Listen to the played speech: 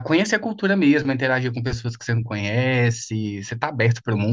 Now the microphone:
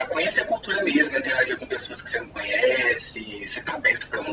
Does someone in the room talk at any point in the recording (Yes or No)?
No